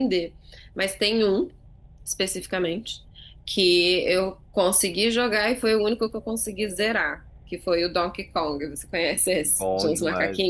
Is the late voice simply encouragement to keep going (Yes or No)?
No